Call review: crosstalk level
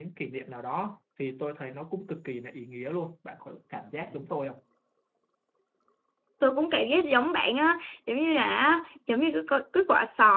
none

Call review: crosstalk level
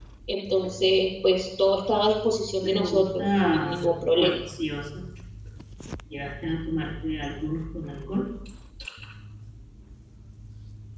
present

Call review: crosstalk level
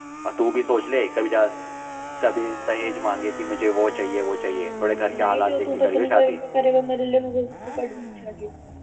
present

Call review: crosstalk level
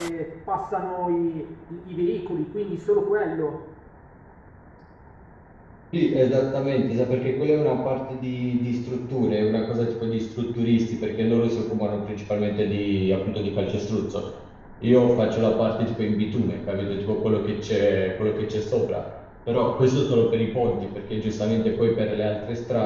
none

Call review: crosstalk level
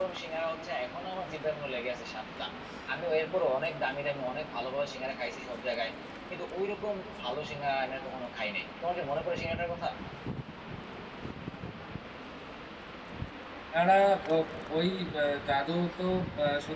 none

